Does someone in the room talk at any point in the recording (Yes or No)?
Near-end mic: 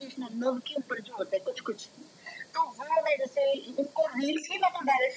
No